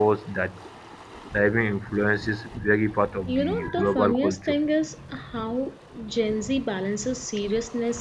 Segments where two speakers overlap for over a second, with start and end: 3.3-4.6

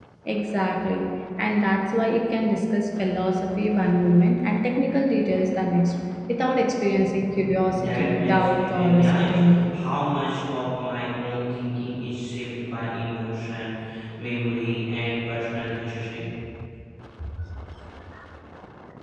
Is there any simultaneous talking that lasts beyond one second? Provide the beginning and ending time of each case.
7.7-9.8

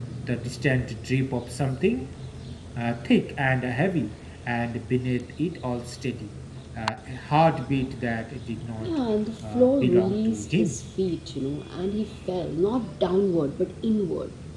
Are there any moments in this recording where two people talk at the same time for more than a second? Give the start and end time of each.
9.5-10.8

